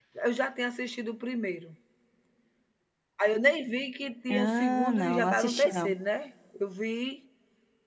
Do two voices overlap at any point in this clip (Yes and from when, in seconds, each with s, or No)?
Yes, from 4.3 s